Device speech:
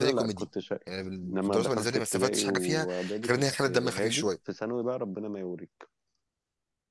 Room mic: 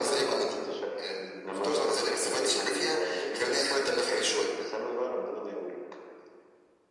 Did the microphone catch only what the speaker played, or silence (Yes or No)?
Yes